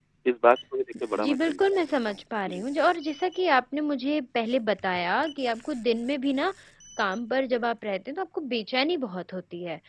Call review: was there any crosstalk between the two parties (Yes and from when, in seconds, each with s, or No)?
Yes, from 1.2 s